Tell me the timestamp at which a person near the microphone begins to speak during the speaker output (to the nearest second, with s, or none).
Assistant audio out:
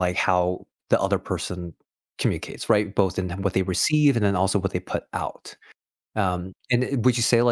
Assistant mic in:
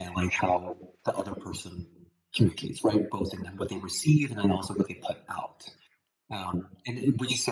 none